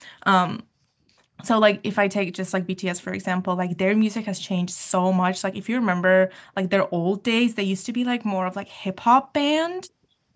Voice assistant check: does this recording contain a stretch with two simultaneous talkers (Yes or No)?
No